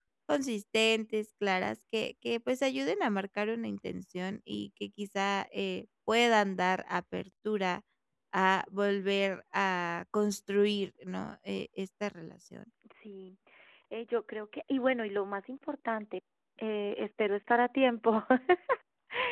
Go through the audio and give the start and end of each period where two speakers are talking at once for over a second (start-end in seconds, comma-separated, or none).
none